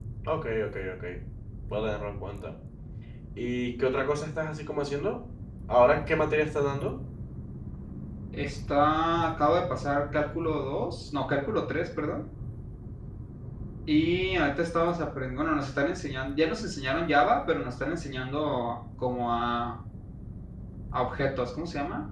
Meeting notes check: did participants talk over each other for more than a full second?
No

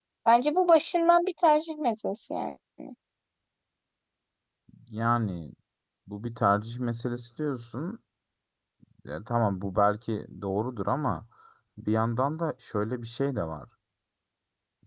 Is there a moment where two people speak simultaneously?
No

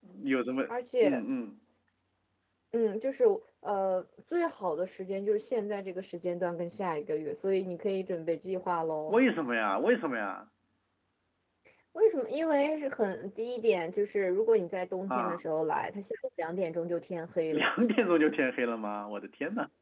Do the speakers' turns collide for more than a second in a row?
No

